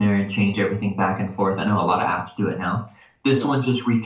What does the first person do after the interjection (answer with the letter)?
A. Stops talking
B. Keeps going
B